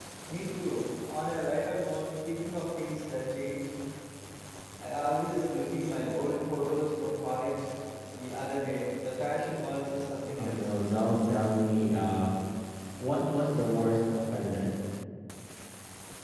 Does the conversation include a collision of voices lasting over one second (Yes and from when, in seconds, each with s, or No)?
No